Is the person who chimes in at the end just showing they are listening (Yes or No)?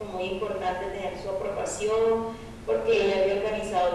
Yes